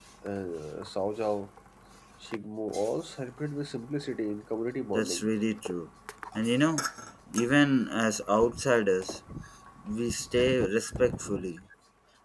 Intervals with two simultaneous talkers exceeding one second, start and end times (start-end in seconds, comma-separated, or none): none